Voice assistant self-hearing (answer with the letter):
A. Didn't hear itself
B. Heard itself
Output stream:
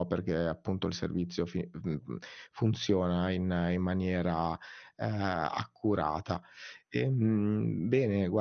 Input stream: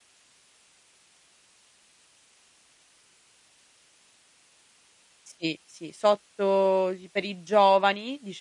A